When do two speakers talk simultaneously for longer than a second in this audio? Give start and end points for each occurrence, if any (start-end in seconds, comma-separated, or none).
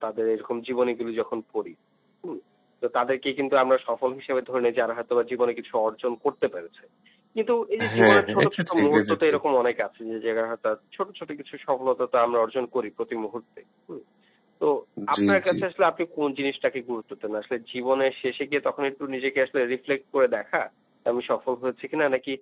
7.9-9.4